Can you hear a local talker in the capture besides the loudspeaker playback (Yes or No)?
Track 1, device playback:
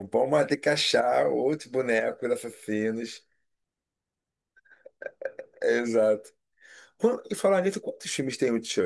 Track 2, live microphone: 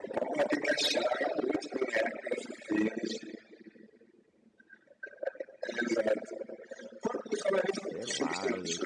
Yes